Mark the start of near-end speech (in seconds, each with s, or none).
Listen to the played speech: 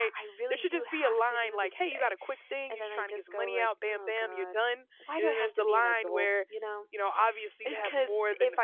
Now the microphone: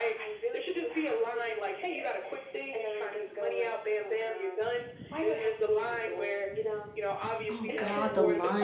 7.5 s